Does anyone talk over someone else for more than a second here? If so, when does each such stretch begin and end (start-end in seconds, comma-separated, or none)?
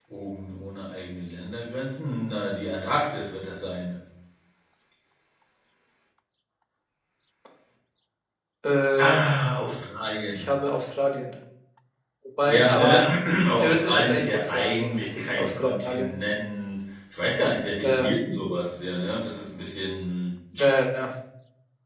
13.6-16.1